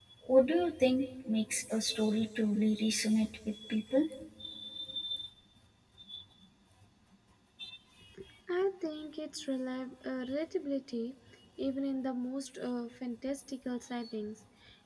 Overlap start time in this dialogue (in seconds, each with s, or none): none